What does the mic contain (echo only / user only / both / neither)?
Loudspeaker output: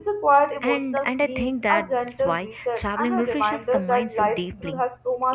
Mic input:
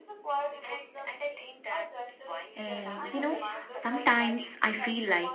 both